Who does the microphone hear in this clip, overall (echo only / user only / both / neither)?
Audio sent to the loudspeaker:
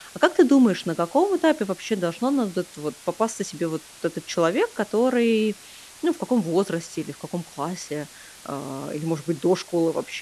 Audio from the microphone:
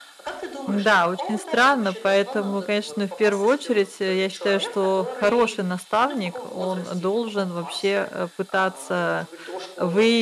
both